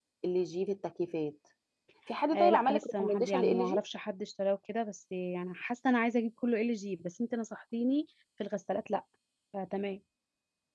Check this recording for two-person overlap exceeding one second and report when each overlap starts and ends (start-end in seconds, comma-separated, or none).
2.3-3.8